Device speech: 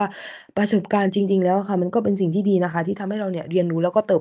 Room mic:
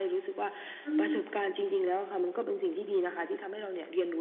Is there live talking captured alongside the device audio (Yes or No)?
Yes